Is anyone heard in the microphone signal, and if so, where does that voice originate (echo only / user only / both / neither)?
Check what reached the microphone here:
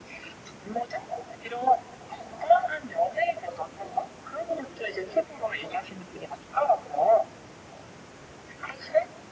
echo only